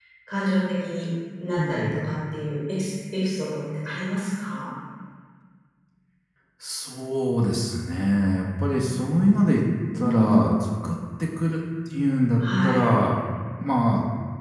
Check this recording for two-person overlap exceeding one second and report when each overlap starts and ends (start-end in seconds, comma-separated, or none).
none